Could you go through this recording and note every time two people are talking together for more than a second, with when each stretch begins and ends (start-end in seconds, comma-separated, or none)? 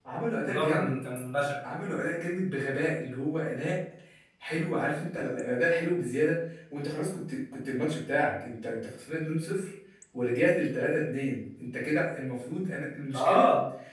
none